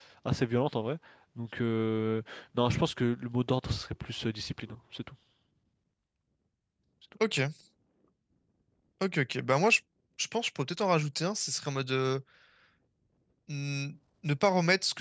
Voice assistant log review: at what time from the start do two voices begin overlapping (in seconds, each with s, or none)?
none